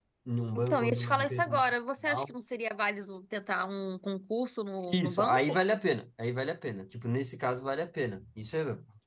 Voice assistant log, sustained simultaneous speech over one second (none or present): present